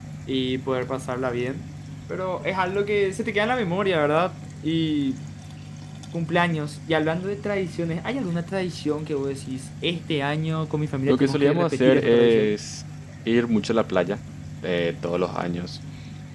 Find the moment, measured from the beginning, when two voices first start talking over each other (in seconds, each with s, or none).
11.1 s